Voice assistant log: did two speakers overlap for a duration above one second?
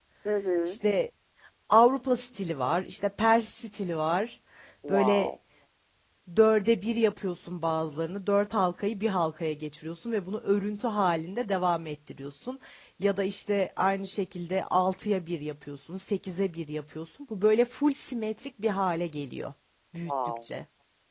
No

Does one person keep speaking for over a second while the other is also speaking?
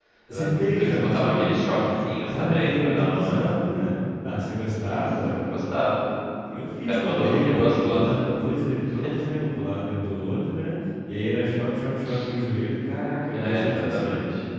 Yes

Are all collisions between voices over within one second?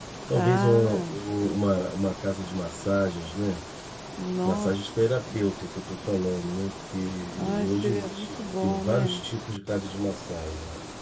No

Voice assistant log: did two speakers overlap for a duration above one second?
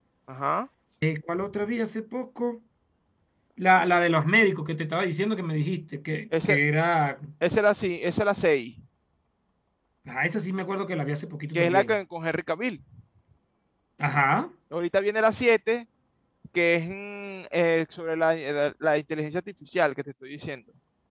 No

